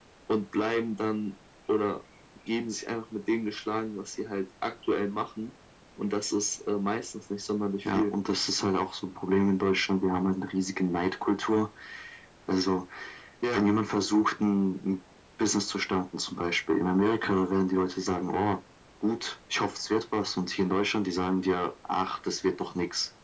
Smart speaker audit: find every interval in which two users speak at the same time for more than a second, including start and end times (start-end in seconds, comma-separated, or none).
none